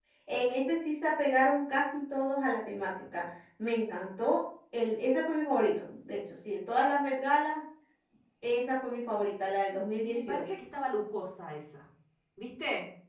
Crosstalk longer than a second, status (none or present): none